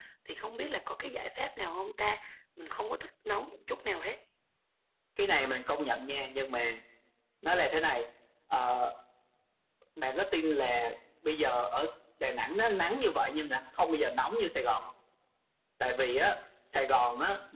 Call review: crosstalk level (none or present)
none